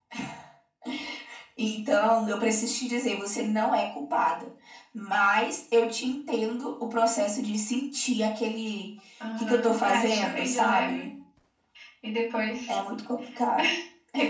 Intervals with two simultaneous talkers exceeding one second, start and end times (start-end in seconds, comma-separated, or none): 9.4-11.1